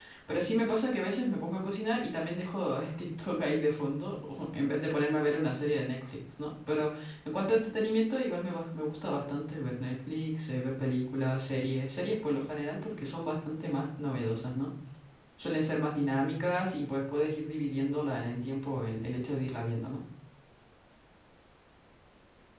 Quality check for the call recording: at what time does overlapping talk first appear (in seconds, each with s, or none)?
none